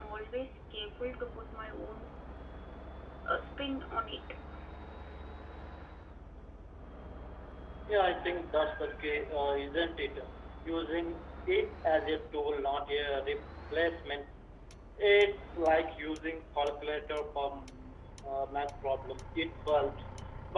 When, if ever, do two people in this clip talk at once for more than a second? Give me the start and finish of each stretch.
none

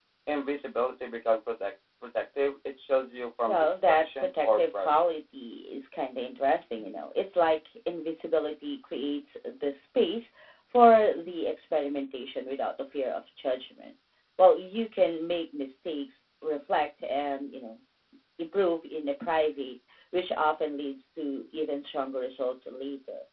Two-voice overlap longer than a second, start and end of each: 3.5-5.1

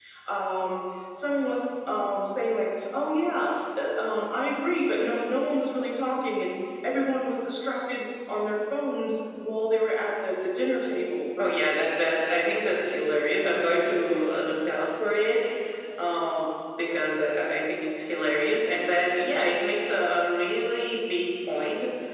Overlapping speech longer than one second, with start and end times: none

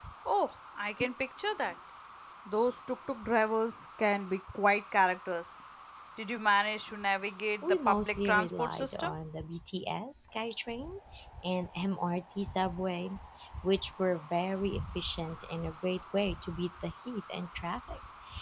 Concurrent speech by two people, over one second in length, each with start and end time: 7.6-9.1

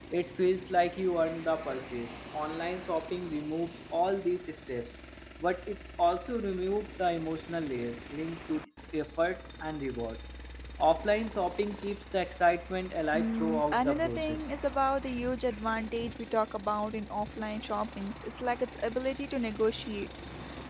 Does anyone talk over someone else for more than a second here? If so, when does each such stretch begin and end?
13.2-14.5

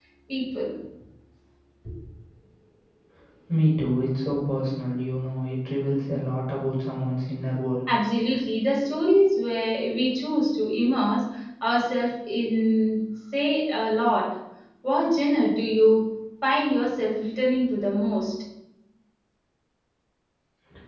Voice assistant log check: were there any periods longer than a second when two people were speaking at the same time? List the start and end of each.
none

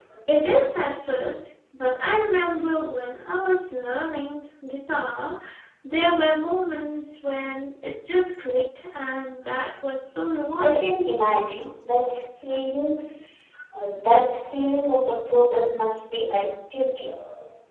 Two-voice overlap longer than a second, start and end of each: none

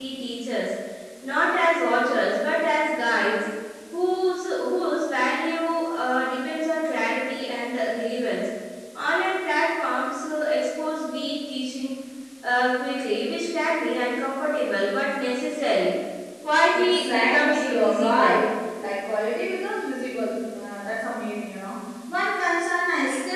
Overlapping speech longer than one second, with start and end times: 16.8-18.4

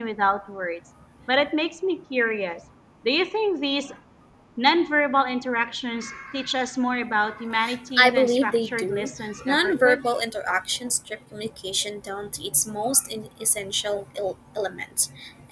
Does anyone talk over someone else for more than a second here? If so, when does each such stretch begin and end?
8.0-10.0

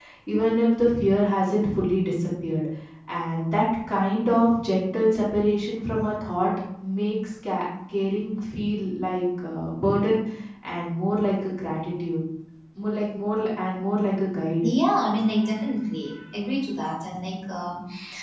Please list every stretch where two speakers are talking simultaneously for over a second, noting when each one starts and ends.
none

